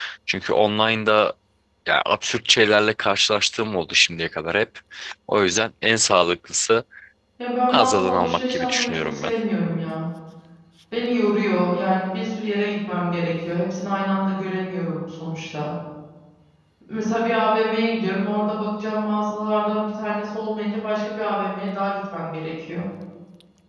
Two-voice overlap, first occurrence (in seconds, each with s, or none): 7.7 s